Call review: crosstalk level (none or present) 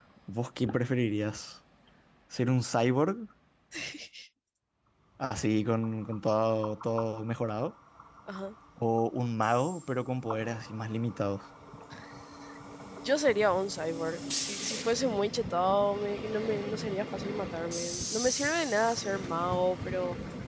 none